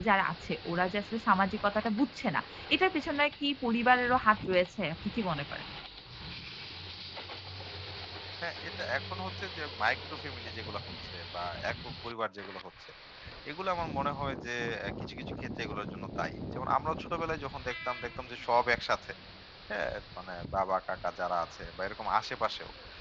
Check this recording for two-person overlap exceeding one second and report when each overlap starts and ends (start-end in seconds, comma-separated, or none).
none